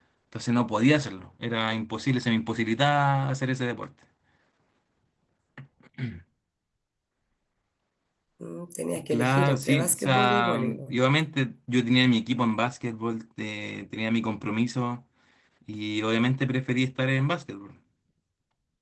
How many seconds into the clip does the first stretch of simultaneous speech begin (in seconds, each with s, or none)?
9.1 s